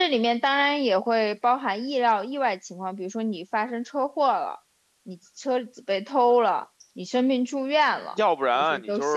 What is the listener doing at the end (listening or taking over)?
taking over